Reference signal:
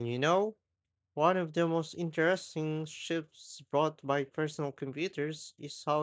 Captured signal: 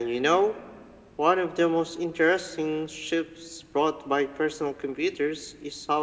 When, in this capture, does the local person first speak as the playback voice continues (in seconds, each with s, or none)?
none